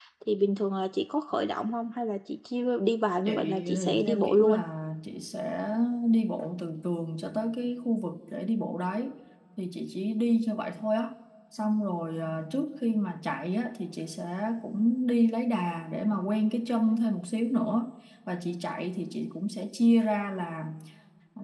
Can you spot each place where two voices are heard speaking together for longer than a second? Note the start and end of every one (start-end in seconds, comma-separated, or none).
3.2-4.6